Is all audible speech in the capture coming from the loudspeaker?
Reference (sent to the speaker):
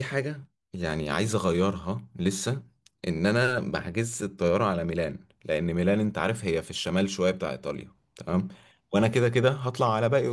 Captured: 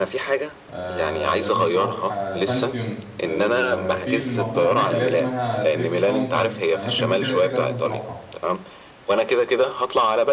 No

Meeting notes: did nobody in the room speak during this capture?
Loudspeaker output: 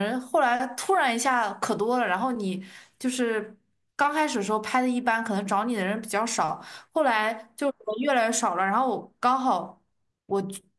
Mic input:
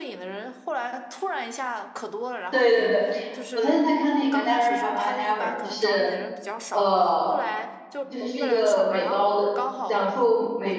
No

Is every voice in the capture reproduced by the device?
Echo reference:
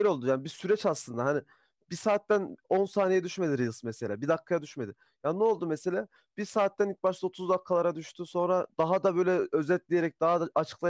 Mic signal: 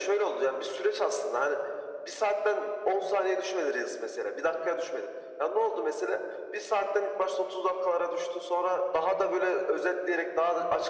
Yes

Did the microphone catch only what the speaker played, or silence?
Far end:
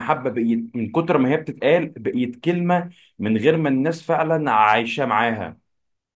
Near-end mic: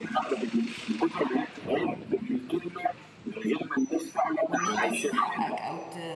No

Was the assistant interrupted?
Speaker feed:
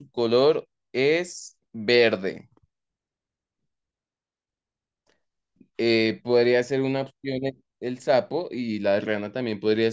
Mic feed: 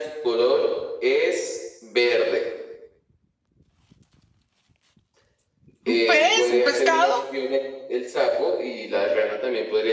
Yes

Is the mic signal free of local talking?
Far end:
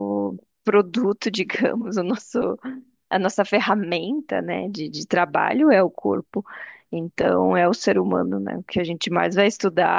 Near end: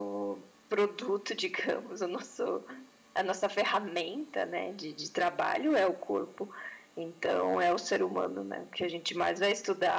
Yes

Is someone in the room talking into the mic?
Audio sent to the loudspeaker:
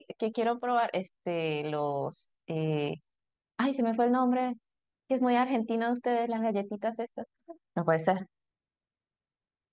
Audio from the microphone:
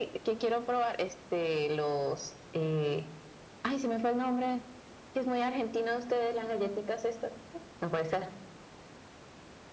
No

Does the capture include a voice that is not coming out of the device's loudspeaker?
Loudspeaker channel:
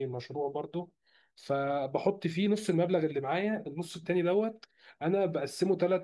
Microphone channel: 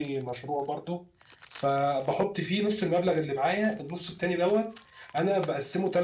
No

